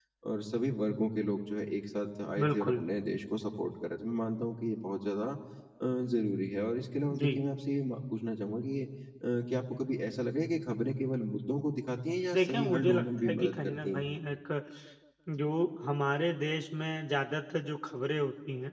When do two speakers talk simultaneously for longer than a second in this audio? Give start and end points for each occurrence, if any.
12.3-14.1

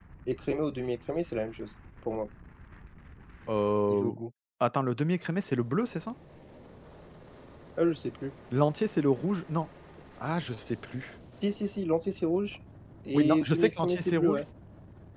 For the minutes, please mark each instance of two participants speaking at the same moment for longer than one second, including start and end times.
13.1-14.4

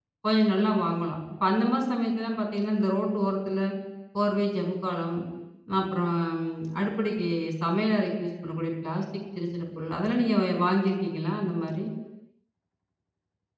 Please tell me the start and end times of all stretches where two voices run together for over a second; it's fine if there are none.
none

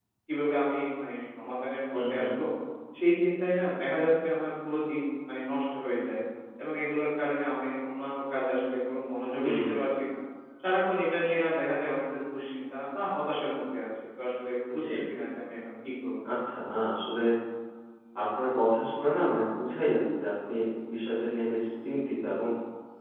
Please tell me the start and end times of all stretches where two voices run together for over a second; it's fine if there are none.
none

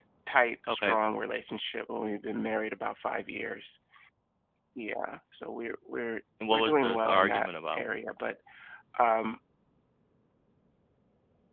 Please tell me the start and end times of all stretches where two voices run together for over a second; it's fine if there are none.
6.5-7.8

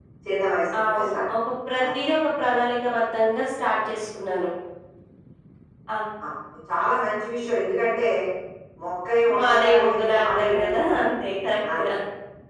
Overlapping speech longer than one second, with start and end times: 9.4-10.9

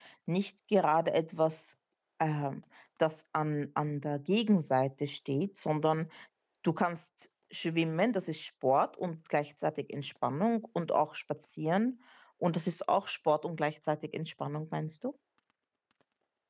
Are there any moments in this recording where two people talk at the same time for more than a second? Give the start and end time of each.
none

